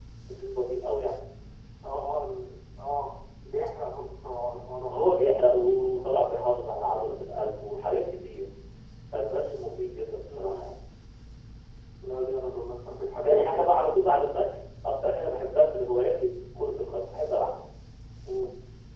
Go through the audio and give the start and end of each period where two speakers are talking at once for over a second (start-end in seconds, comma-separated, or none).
none